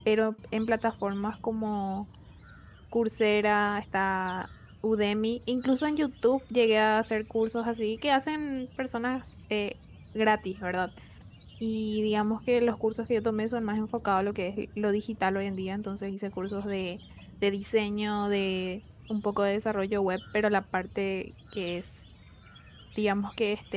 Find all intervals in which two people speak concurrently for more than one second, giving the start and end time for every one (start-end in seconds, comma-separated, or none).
none